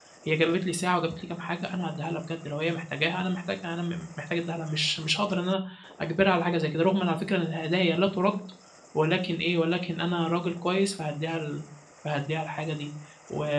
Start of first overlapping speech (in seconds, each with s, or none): none